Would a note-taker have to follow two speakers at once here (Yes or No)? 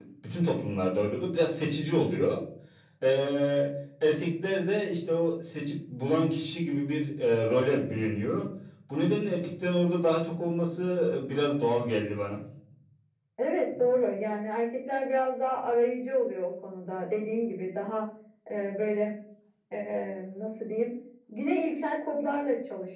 No